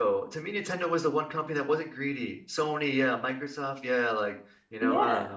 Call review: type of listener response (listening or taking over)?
taking over